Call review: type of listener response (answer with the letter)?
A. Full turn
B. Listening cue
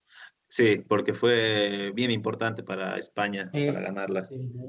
A